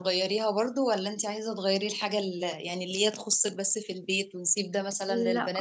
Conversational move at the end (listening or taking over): taking over